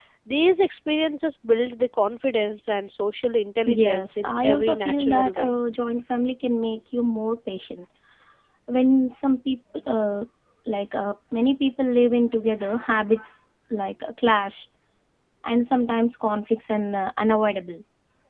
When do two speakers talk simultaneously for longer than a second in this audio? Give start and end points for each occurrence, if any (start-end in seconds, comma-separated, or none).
3.7-5.5